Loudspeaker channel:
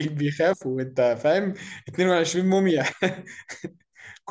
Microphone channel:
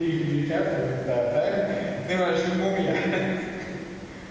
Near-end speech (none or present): none